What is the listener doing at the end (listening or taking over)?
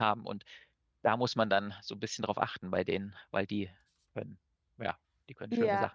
taking over